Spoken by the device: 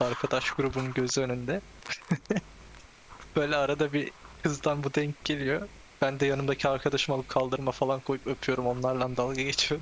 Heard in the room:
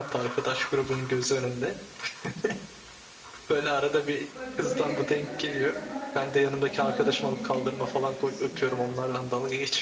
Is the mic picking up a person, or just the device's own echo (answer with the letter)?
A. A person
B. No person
A